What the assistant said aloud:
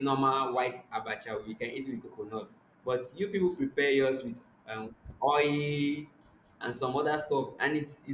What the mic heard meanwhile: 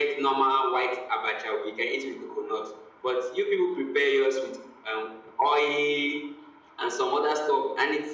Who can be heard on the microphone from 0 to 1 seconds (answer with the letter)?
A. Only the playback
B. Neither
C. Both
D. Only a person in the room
A